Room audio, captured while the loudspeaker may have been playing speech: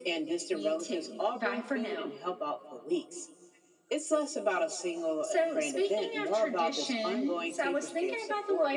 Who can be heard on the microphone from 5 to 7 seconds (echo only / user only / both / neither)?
echo only